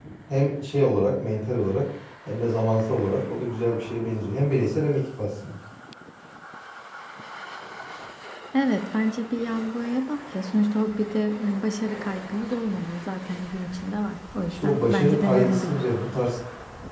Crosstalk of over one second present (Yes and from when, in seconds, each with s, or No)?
Yes, from 14.5 s